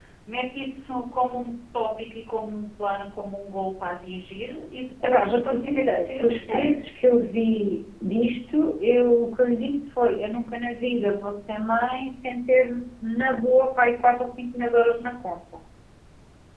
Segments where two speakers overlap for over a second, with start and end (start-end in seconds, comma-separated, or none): 5.0-6.7